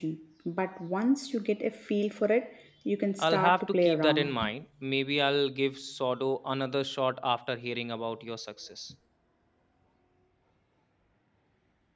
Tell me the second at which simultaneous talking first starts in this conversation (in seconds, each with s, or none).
3.2 s